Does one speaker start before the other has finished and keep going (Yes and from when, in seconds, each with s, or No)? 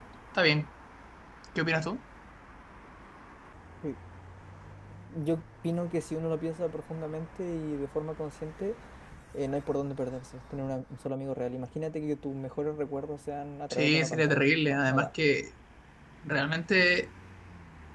Yes, from 13.7 s